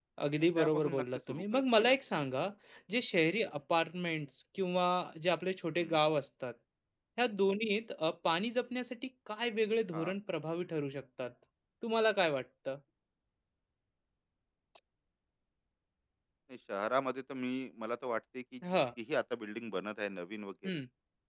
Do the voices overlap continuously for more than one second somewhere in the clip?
Yes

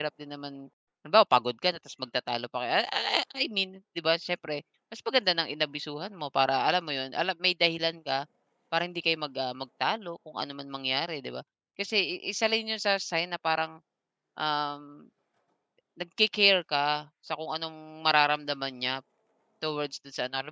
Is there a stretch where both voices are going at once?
No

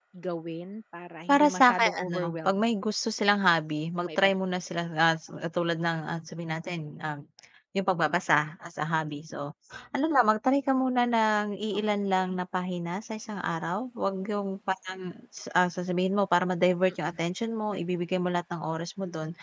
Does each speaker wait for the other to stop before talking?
No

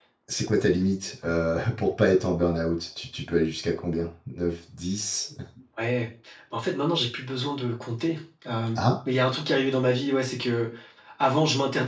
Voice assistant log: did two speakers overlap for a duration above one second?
No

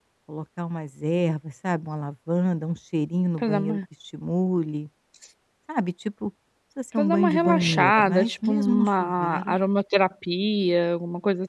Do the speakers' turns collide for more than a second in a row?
Yes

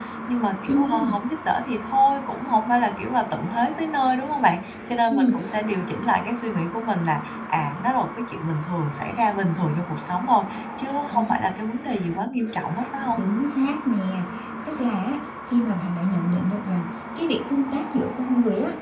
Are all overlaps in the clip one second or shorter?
Yes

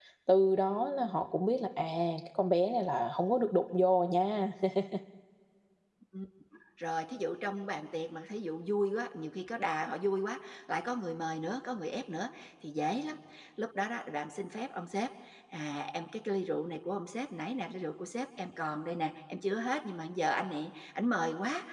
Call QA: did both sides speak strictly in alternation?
Yes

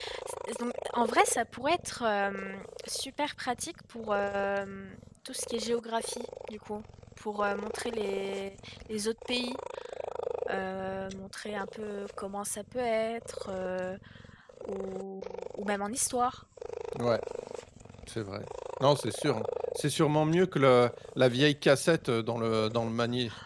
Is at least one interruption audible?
No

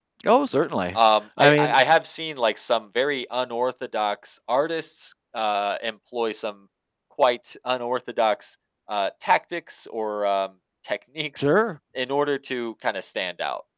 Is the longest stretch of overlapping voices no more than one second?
Yes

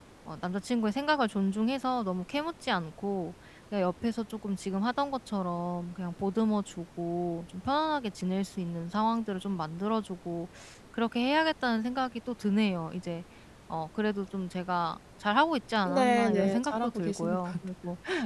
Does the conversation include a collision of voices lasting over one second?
Yes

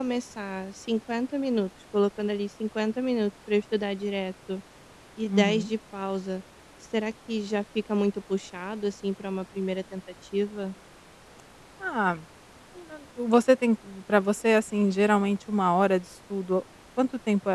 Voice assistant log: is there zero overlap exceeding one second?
Yes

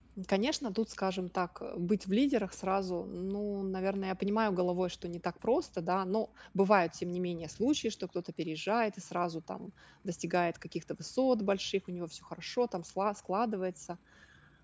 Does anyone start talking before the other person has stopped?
No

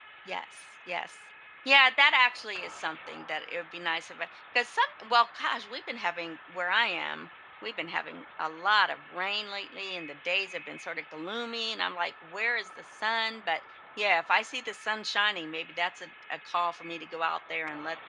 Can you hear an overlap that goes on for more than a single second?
No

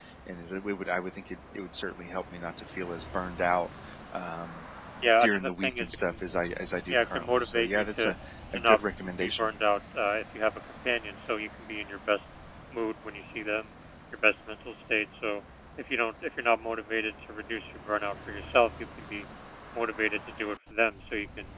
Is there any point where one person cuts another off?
Yes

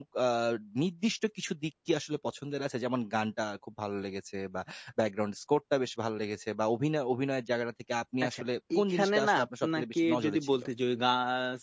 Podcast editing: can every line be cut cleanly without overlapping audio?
No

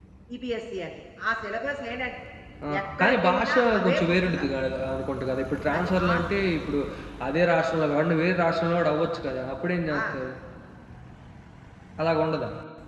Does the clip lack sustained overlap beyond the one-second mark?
No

